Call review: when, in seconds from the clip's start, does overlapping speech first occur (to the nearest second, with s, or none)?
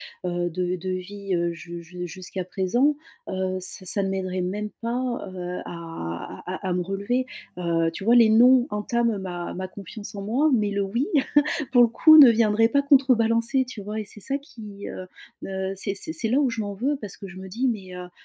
none